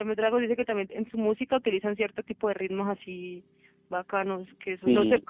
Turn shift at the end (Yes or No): No